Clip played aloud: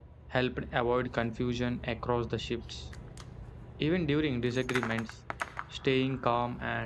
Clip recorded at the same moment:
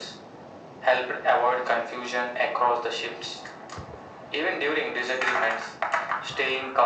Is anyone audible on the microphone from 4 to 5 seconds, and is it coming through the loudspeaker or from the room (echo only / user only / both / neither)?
echo only